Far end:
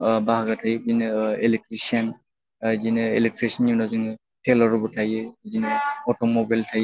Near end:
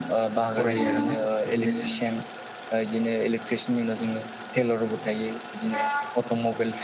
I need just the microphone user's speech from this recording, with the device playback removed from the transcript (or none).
फरायो आरोना बिदिनो जोङो